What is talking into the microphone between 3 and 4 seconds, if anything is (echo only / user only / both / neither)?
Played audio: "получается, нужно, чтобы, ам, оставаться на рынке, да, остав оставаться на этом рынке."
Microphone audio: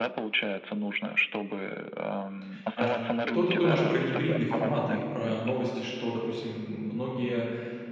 both